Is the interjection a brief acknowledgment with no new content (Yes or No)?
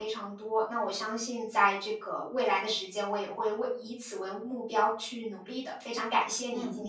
No